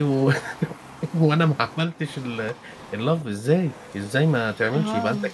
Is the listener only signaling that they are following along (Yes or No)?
Yes